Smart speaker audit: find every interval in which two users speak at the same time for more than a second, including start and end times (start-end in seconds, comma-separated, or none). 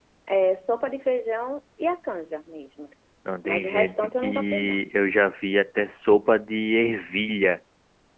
3.5-4.8